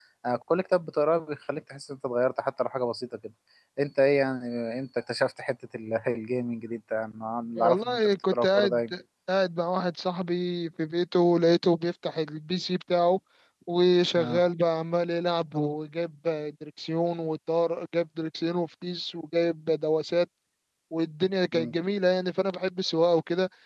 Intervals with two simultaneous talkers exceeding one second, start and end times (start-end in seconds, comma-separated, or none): 7.6-8.9